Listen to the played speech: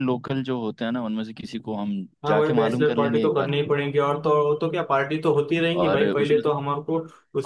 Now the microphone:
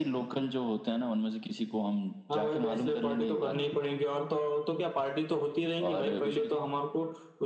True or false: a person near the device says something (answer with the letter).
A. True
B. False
B